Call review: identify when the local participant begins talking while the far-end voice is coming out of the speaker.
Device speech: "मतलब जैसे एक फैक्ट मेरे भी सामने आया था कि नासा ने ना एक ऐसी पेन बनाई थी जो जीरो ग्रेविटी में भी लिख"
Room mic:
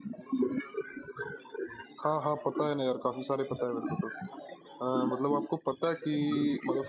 2 s

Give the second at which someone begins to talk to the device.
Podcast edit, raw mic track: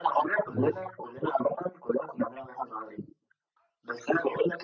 1 s

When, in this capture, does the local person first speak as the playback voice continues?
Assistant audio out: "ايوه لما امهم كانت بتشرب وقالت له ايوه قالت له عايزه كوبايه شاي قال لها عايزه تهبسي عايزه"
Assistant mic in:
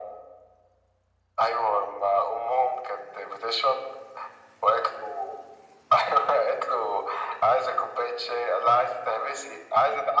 none

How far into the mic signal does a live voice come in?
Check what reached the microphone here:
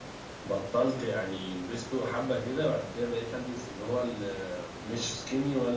none

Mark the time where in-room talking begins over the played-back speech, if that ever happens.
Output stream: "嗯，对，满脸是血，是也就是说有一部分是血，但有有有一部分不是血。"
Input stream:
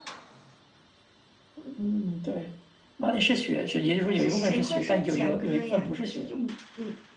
3 s

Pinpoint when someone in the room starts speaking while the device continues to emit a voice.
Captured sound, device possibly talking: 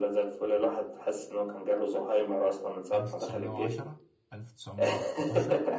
3 s

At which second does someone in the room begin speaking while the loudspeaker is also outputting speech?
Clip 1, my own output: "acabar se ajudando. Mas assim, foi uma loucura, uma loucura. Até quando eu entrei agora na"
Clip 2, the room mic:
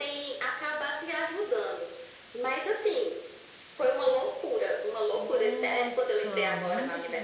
5 s

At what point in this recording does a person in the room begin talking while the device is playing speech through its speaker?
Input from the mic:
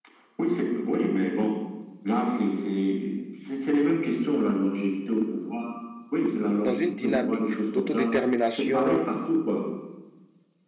7 s

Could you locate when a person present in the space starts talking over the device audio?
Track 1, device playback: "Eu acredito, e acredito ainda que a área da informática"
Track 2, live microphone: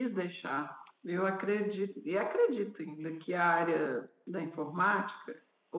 none

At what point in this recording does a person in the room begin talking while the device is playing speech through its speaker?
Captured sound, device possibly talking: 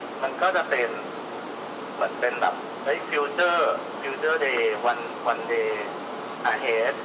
none

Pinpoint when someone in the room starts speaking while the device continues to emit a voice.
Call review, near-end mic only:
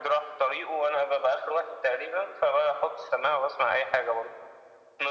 none

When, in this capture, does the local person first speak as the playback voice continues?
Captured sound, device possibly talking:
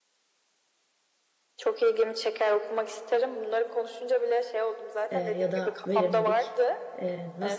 5 s

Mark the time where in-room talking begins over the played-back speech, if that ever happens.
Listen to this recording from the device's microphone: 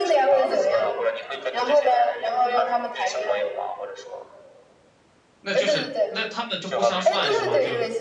5 s

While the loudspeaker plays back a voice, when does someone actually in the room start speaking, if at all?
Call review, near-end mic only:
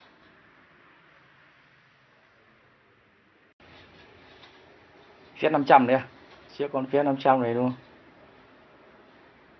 5 s

